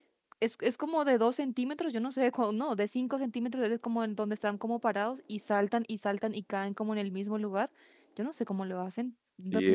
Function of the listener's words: taking over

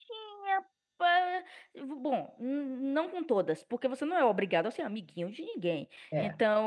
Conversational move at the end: listening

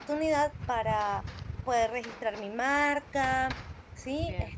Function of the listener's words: taking over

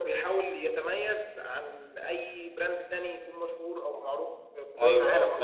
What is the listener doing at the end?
taking over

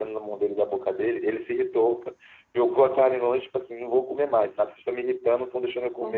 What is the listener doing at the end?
listening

